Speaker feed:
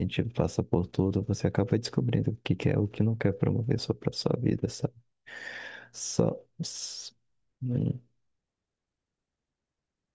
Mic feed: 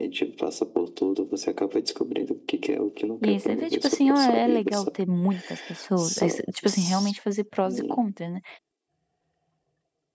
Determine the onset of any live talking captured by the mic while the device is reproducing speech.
3 s

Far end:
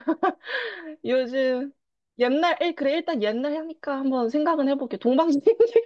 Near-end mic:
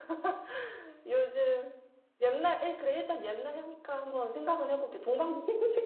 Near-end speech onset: none

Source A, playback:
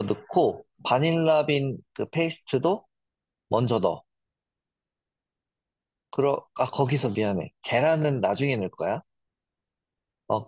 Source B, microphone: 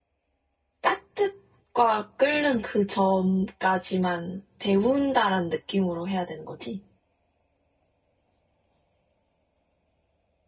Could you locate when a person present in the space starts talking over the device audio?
1 s

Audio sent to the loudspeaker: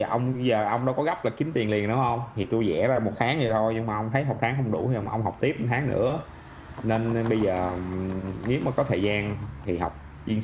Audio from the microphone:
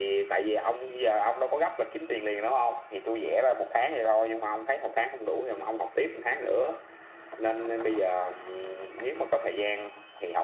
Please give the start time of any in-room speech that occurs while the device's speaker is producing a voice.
none

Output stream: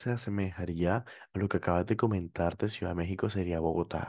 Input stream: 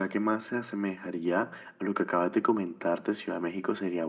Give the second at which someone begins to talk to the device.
none

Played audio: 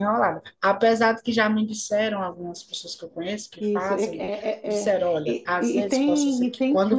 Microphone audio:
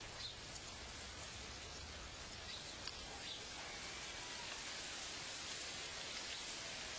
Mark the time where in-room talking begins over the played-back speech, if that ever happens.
none

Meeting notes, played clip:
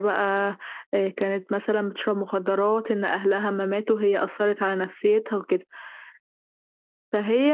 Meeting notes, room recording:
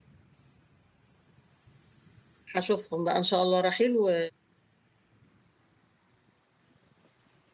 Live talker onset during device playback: 3 s

